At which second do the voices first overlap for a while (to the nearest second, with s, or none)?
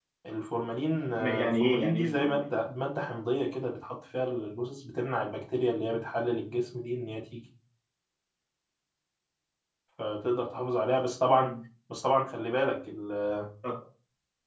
1 s